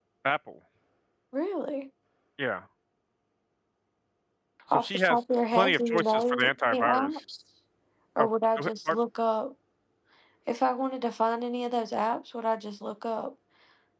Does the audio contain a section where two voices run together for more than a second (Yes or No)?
Yes